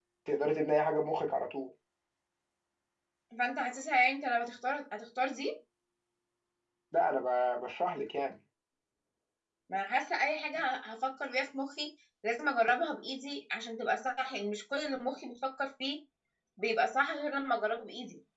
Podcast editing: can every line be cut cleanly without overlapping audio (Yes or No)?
Yes